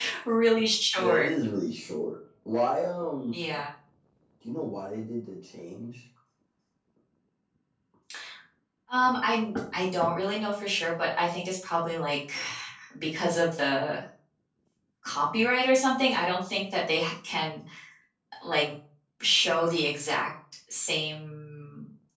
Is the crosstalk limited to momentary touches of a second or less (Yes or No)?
Yes